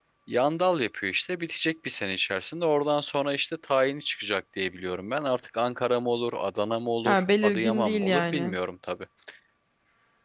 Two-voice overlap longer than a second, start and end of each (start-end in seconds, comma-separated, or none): 7.0-8.5